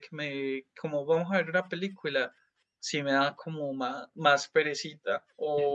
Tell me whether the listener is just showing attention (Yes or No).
Yes